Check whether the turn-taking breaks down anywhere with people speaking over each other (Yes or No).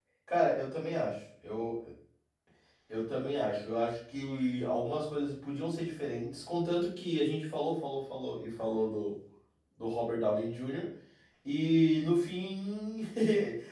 No